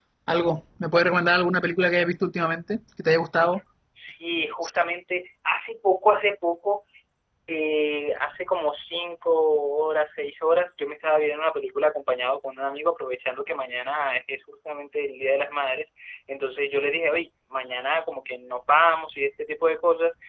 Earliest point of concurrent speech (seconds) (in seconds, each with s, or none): none